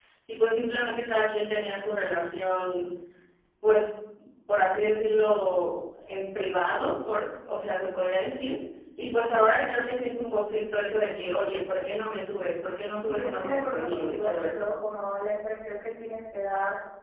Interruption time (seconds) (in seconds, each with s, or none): 13.0 s